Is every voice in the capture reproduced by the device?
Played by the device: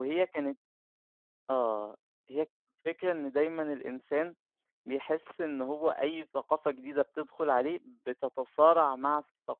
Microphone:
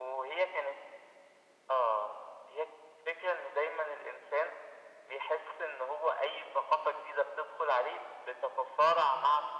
Yes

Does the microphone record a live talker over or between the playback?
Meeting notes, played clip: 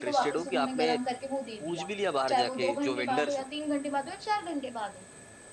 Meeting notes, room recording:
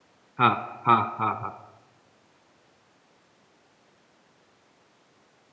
Yes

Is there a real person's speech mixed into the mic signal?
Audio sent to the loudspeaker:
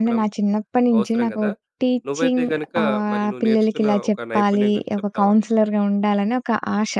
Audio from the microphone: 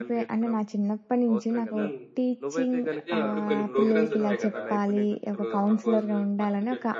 Yes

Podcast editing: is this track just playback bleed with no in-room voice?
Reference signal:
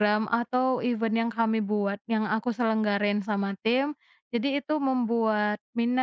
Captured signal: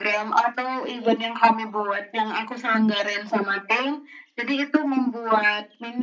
Yes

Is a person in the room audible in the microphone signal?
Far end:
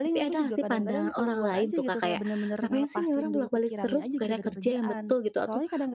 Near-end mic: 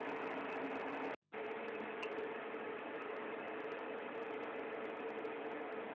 No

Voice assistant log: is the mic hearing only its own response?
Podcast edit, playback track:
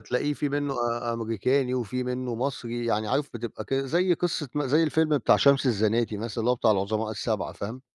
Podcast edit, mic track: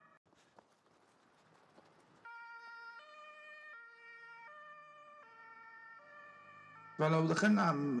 No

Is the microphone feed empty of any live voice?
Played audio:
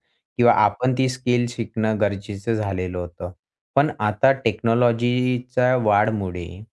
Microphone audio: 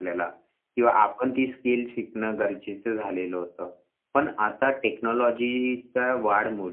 Yes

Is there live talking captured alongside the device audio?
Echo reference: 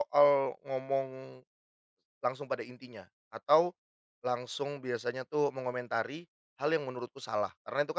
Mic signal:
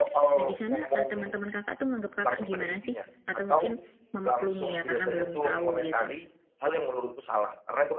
Yes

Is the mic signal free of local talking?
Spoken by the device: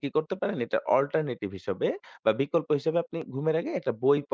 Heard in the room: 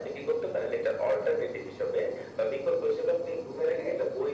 Yes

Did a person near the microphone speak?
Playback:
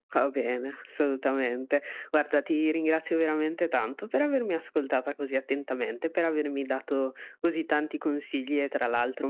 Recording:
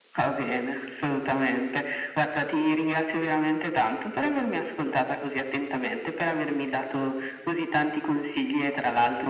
No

